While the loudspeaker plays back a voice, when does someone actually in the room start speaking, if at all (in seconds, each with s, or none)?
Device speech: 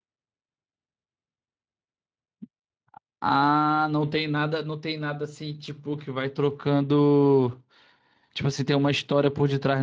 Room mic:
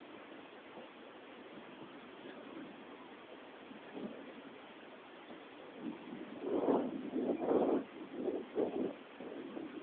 none